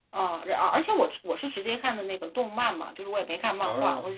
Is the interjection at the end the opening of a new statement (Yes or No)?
No